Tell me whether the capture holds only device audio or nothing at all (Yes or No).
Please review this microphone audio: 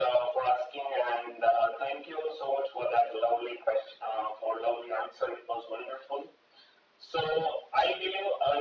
Yes